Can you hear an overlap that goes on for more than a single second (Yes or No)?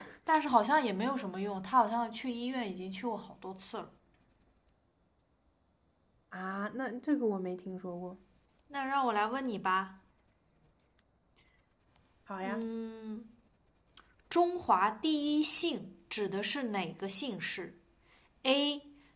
No